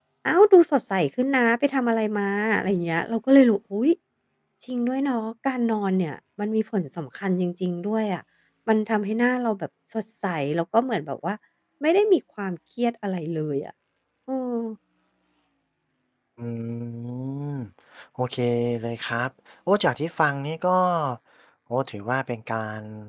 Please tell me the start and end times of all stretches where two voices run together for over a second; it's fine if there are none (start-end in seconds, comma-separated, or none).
none